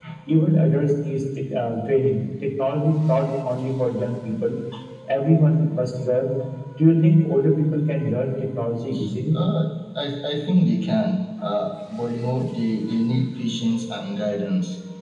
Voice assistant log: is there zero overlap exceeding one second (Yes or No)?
Yes